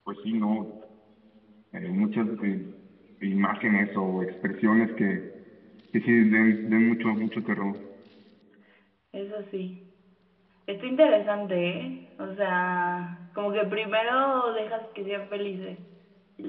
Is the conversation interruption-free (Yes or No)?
Yes